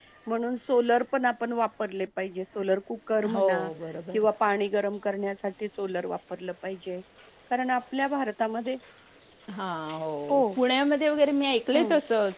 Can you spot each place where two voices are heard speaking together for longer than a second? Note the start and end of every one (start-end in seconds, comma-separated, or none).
none